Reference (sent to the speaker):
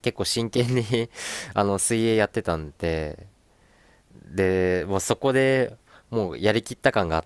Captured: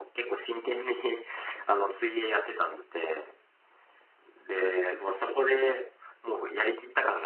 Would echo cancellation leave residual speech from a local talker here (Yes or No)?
No